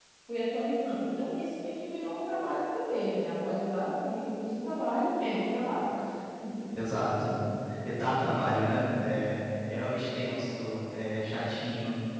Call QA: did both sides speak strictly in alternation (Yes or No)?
Yes